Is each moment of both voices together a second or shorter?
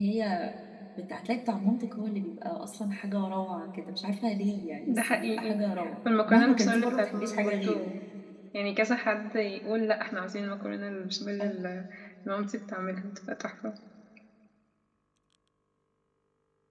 No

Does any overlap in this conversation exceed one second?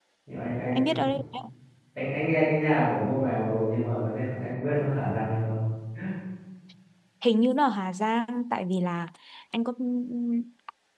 No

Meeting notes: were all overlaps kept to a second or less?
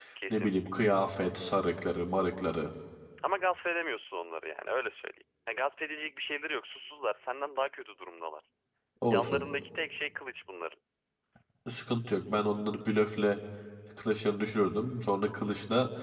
Yes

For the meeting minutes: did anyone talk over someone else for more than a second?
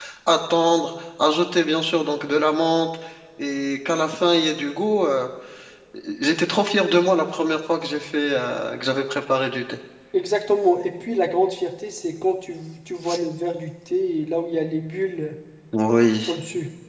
No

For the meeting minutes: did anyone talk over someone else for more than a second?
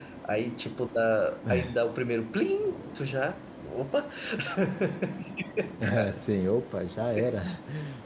No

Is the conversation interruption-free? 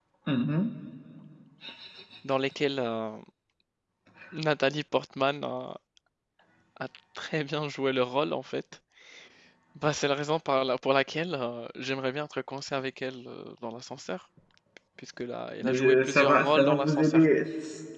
No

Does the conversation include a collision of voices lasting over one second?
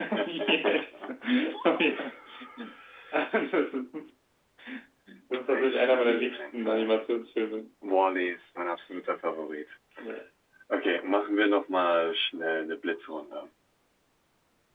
Yes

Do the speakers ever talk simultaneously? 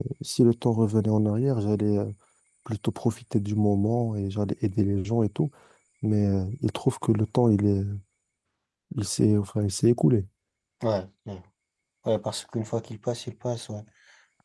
No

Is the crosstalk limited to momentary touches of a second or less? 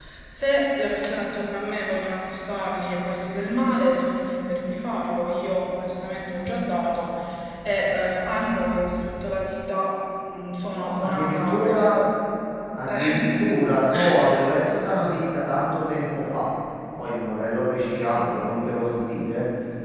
No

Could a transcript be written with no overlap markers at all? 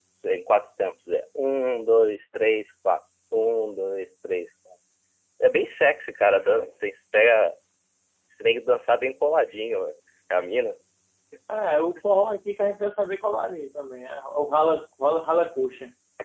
Yes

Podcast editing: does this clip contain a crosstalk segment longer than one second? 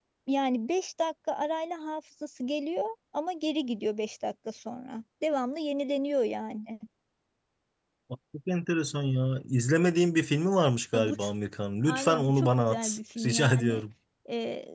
Yes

